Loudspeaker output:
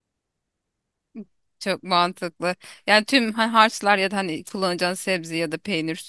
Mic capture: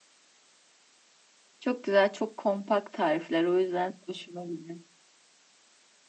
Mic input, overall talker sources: user only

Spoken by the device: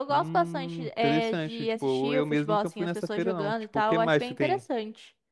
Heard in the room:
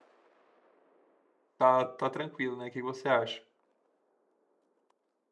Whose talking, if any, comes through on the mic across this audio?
user only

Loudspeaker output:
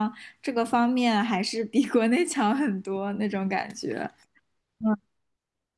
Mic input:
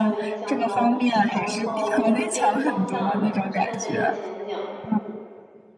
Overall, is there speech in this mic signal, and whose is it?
both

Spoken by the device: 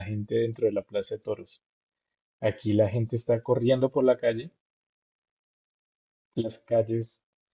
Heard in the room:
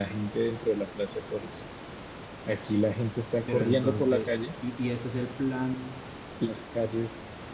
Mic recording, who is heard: both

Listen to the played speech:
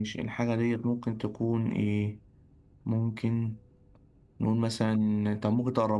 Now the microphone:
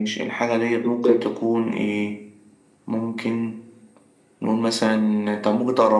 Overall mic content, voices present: both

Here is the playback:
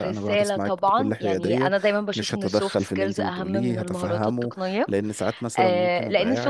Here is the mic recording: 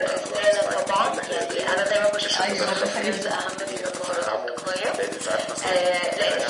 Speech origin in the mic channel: both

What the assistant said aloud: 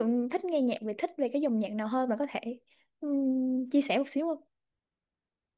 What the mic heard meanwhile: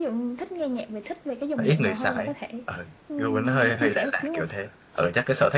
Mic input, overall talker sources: both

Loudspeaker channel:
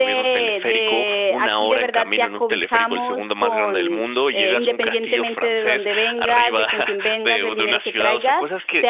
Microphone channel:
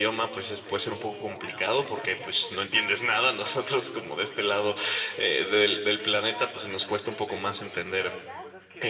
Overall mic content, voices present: both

